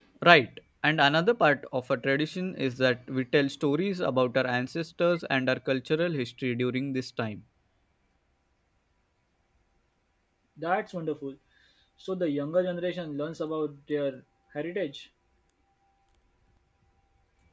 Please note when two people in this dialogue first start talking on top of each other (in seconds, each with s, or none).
none